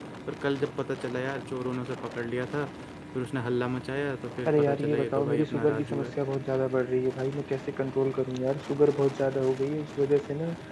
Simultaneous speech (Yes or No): Yes